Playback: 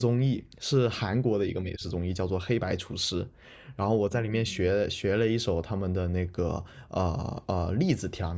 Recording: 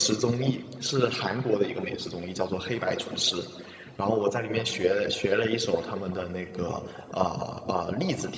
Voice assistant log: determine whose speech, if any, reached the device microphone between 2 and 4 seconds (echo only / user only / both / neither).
echo only